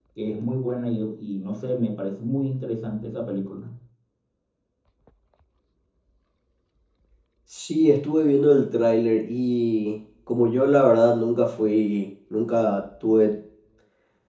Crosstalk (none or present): none